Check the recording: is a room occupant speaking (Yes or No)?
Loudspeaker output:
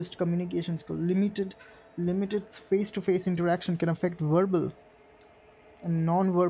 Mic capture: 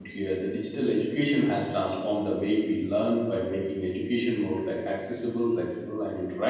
Yes